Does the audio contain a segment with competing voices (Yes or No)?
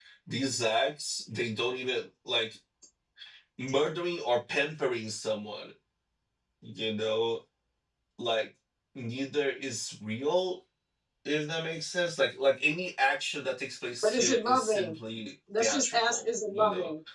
Yes